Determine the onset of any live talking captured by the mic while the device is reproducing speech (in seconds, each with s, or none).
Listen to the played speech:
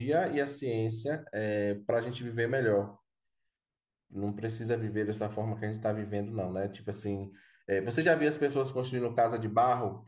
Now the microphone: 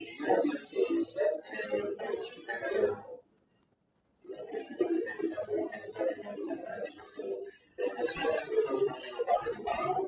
none